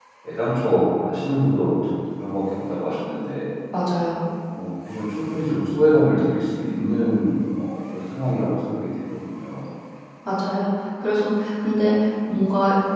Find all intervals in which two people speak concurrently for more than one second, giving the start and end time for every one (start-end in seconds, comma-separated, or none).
none